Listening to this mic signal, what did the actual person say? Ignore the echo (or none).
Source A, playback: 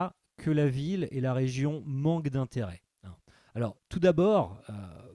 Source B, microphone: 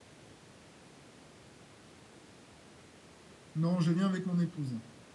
Non, je viens avec mon épouse.